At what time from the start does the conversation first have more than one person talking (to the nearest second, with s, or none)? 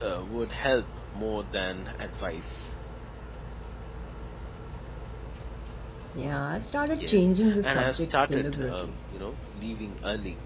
7 s